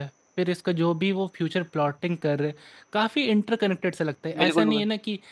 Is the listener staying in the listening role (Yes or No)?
Yes